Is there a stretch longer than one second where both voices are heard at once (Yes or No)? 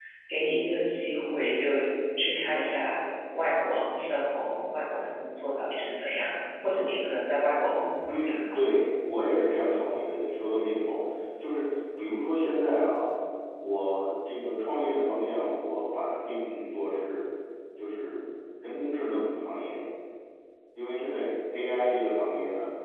No